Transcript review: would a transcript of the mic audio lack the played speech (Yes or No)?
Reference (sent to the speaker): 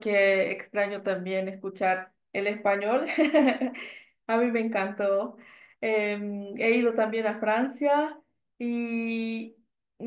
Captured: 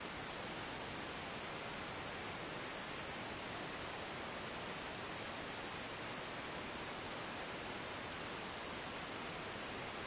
Yes